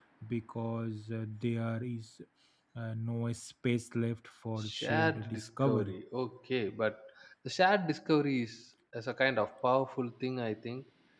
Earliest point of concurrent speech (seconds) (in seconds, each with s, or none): 4.6 s